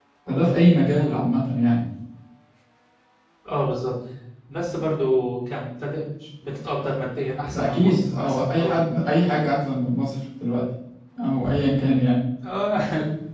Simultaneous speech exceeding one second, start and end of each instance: 7.5-8.8

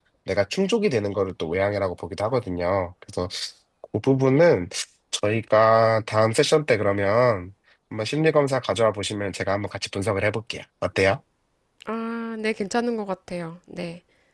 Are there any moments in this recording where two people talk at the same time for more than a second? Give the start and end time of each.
none

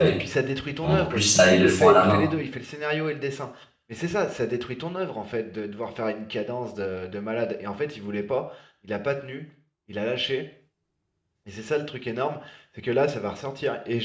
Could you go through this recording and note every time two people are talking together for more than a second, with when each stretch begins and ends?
0.8-2.3

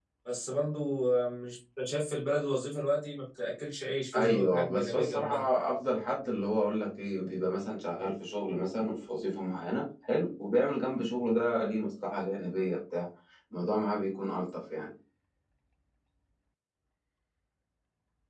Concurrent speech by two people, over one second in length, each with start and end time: 4.2-5.4

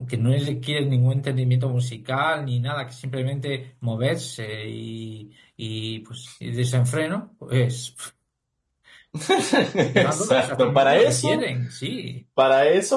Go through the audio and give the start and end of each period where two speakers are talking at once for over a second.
9.9-11.4

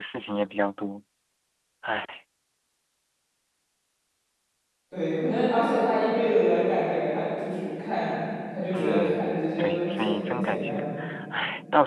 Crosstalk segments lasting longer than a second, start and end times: 8.7-10.8

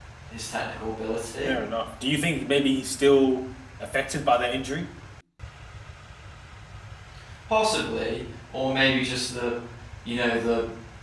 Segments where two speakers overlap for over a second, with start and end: none

